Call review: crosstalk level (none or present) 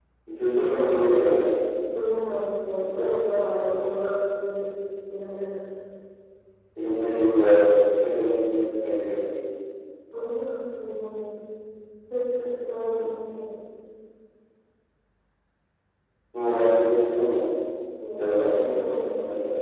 present